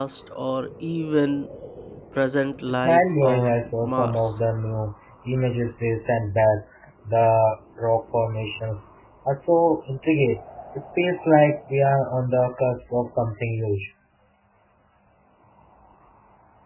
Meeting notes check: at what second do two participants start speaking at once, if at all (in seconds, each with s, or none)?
2.7 s